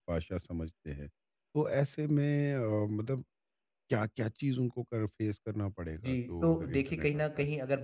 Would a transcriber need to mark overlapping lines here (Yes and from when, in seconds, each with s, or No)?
Yes, from 6.0 s